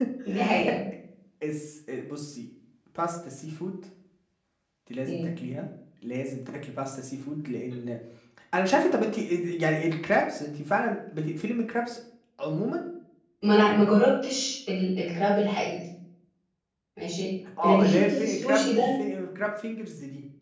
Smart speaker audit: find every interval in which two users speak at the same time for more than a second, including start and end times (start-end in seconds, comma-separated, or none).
17.6-19.0